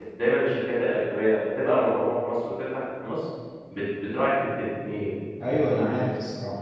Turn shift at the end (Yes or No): Yes